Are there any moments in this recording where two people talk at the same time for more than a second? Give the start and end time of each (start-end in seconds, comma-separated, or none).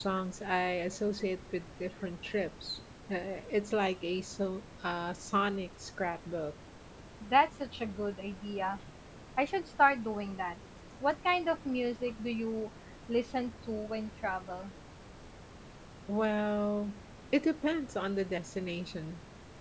none